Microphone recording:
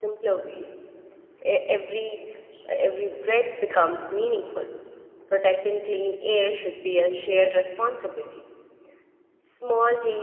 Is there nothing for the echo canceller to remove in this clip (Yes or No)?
Yes